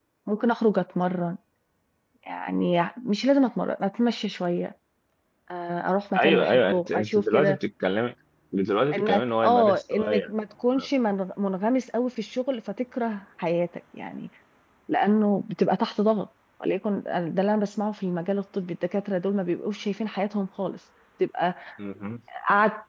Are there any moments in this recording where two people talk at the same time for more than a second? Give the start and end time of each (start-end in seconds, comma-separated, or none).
6.1-7.6, 8.9-10.3